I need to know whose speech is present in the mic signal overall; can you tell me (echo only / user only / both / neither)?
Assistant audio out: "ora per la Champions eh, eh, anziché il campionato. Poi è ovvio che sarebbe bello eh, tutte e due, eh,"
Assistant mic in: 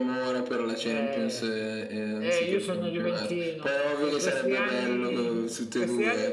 both